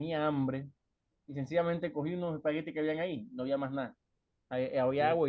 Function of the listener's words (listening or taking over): listening